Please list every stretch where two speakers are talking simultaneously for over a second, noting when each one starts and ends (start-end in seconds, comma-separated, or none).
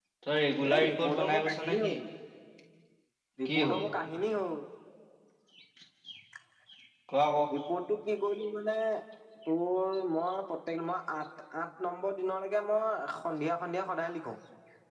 0.7-1.9